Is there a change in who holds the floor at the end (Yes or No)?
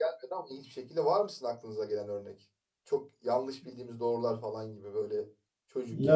Yes